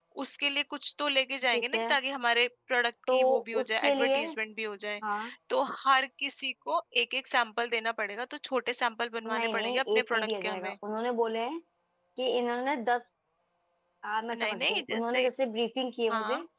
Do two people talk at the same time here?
Yes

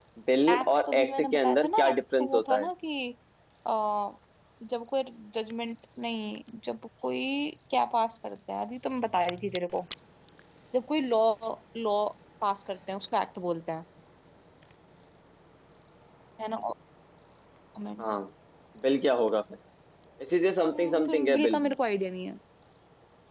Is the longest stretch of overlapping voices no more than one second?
No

